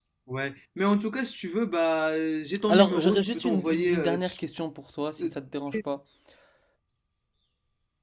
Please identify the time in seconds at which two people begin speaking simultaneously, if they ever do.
3 s

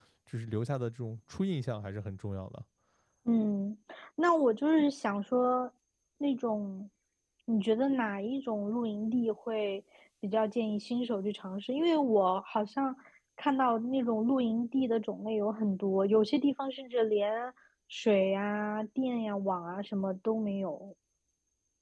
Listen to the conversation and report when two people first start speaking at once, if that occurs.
none

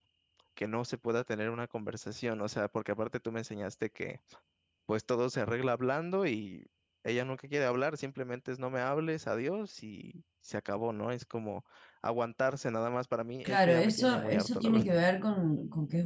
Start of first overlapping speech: 13 s

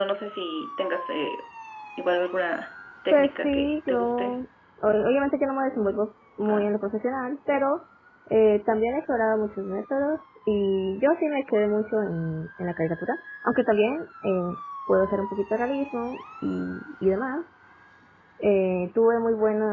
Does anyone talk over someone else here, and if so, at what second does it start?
3 s

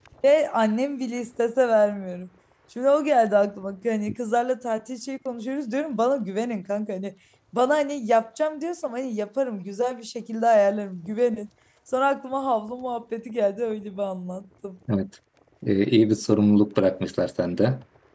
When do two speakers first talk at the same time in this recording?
none

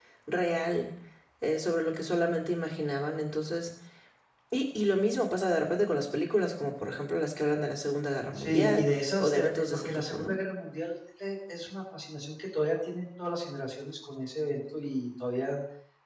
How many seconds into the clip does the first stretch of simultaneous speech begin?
8 s

